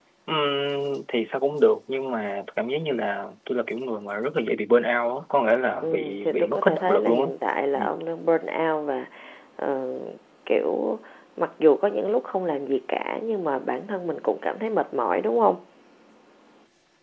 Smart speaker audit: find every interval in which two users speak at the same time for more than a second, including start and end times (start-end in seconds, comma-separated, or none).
5.8-7.3